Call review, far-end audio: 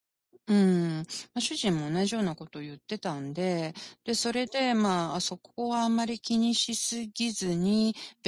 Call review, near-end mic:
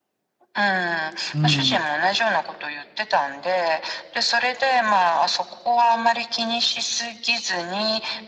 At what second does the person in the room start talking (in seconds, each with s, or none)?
1.3 s